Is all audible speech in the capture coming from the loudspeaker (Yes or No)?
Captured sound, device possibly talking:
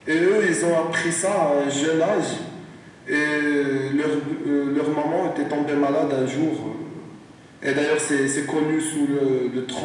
Yes